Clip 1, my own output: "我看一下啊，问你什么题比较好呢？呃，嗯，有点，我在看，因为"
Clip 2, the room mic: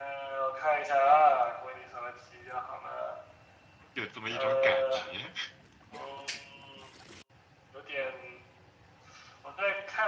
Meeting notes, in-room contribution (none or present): present